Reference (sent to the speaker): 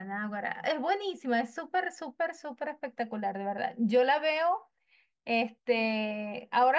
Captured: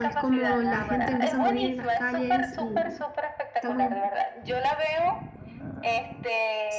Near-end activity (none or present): present